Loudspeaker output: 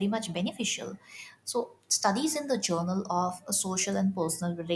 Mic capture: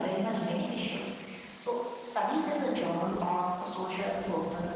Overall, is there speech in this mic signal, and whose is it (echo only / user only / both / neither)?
echo only